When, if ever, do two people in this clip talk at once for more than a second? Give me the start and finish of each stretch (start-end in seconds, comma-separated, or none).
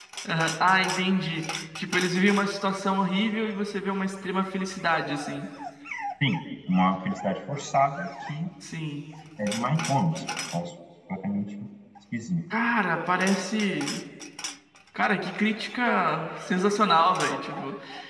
none